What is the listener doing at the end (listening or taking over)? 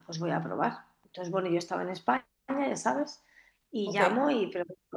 listening